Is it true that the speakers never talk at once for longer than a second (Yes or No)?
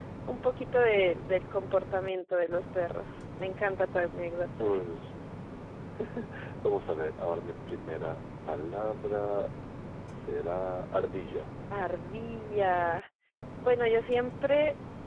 Yes